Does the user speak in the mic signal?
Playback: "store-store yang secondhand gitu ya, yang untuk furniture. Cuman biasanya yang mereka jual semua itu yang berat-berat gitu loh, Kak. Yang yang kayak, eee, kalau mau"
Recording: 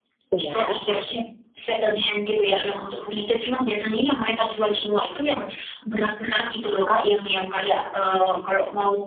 Yes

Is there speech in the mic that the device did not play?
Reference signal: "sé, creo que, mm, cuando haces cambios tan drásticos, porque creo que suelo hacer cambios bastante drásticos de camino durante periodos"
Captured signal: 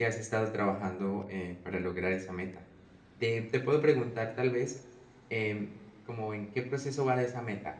Yes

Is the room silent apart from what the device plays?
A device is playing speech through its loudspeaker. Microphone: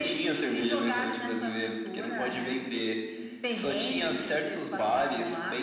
Yes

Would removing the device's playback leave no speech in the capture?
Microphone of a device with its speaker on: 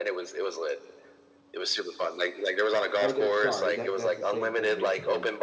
No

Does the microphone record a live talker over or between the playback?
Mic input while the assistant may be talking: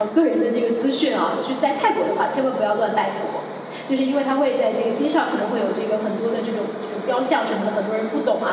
Yes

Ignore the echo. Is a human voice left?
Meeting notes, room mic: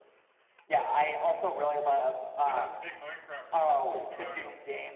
Yes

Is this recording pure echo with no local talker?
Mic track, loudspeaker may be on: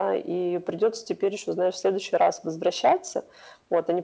Yes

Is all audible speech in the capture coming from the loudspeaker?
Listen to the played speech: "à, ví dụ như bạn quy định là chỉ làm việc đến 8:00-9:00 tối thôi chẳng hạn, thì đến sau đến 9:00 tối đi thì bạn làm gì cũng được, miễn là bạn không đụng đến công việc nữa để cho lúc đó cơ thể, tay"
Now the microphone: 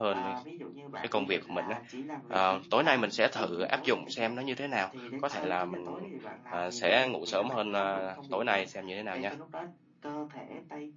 No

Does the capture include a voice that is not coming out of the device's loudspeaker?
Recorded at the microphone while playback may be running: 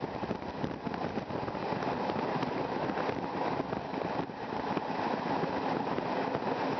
No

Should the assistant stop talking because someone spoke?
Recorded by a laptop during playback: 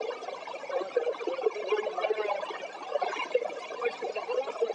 No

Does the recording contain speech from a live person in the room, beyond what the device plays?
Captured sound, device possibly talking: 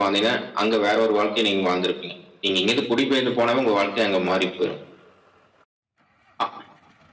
No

